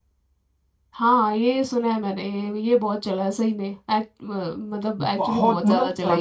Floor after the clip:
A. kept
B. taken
B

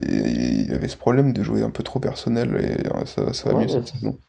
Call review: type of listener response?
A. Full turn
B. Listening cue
A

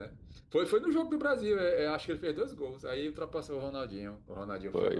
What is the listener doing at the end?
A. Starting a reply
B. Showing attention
A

